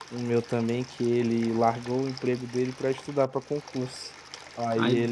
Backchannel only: Yes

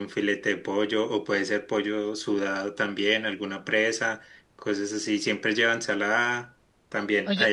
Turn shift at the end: Yes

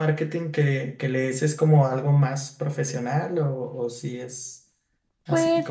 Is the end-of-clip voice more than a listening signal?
Yes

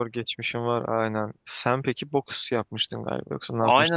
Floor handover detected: Yes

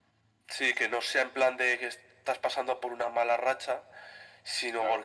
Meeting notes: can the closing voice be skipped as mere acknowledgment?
Yes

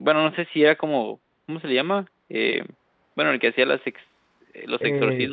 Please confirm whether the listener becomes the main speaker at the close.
Yes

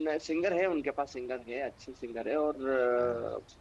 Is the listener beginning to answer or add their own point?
No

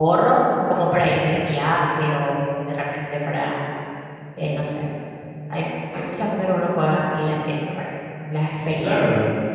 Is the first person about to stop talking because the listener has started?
Yes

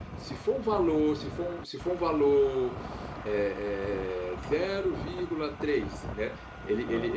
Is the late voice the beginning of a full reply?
No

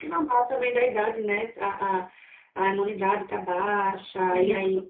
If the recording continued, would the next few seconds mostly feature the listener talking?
No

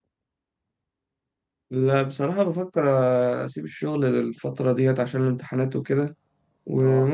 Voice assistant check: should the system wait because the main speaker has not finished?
Yes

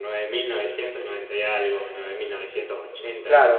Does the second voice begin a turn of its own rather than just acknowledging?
Yes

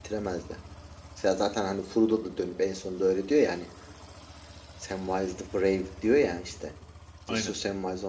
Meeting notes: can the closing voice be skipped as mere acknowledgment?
Yes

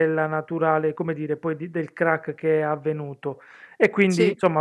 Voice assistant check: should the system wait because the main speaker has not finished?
Yes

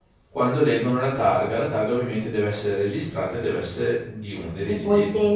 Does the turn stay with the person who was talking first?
No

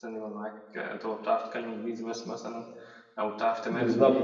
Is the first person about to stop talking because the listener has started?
No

